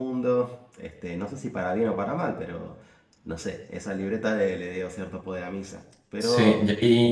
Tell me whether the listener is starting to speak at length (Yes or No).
Yes